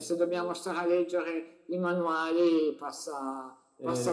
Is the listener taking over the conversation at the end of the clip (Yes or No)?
No